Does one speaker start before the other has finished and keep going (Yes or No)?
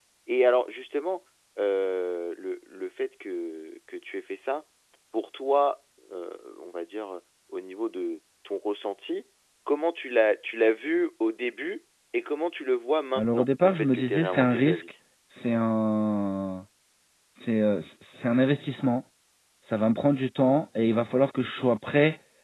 Yes